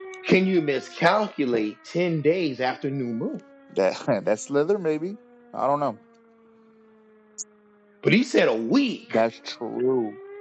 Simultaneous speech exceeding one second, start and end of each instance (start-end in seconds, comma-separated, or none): none